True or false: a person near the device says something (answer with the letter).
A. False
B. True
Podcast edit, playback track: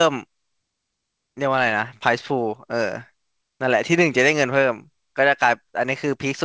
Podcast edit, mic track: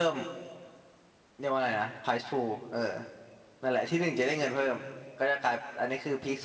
A